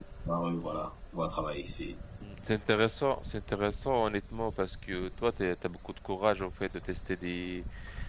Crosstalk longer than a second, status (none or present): none